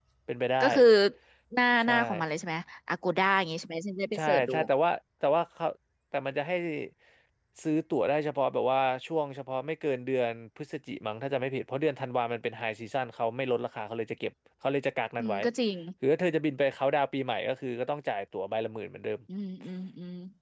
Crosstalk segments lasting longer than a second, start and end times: none

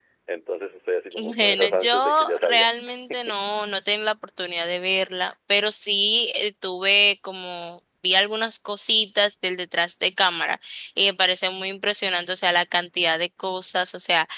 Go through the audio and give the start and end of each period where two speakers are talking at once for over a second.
1.1-2.7

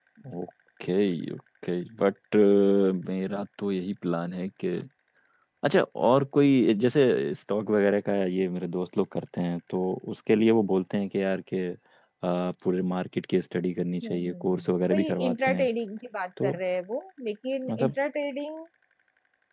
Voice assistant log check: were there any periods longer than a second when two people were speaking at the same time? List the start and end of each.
14.0-15.7

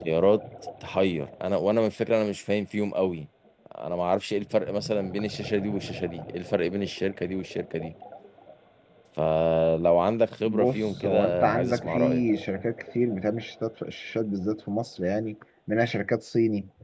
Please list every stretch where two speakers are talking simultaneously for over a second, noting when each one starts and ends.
10.4-12.2

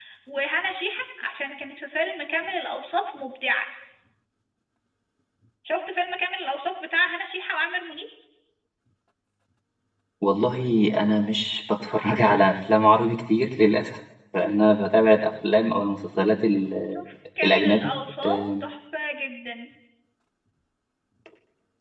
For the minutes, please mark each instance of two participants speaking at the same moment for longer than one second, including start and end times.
none

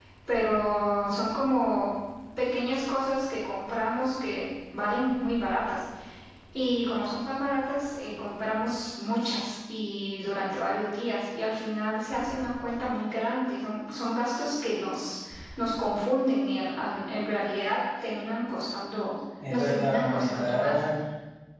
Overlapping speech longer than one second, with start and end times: 19.5-20.8

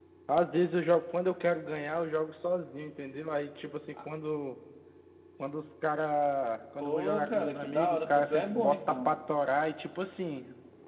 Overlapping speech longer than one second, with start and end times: 6.8-9.2

